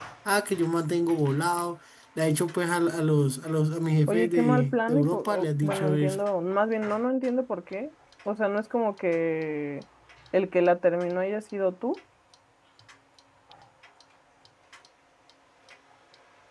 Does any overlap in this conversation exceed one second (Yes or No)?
Yes